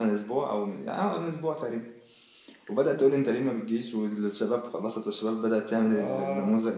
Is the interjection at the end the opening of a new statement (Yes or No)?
No